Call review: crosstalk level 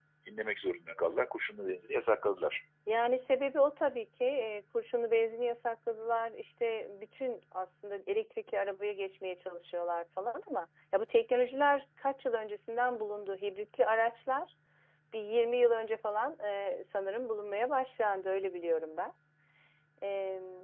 none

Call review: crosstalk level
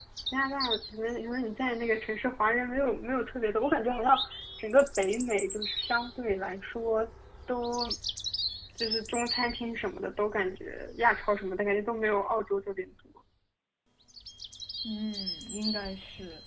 none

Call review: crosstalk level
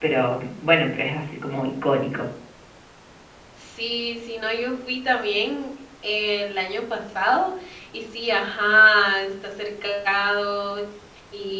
none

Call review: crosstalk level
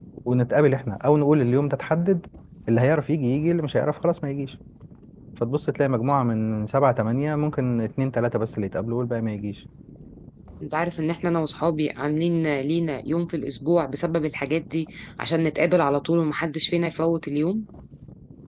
none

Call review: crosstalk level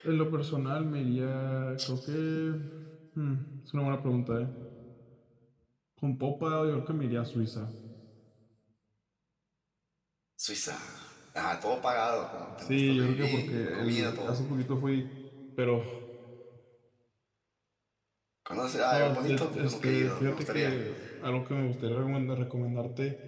present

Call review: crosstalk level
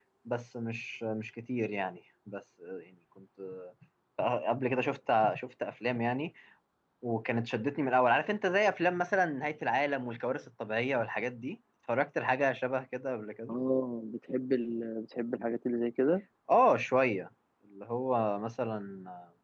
none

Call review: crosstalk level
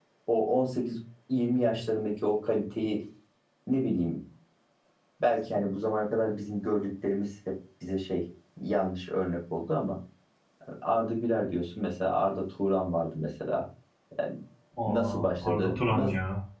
present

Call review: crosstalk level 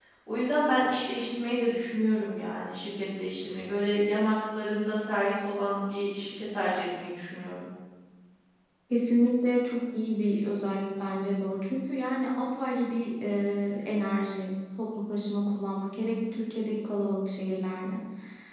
none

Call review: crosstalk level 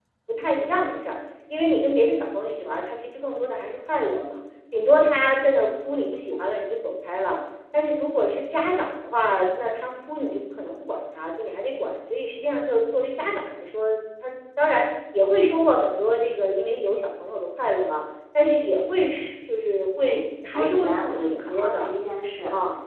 present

